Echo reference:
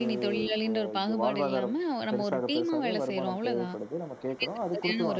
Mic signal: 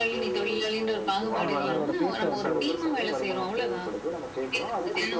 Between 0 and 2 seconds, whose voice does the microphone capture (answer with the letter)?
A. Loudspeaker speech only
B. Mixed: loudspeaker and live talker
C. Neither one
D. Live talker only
B